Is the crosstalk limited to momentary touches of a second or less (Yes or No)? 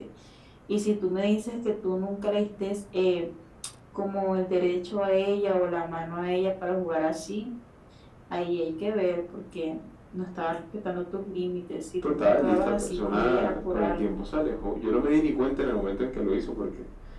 No